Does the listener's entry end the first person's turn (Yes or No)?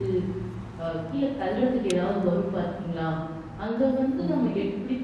No